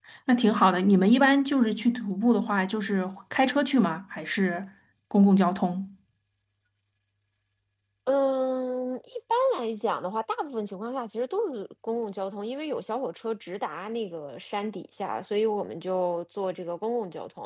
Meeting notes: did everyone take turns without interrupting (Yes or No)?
Yes